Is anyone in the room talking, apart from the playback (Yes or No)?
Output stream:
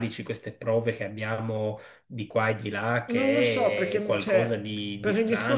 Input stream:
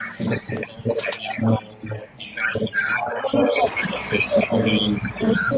No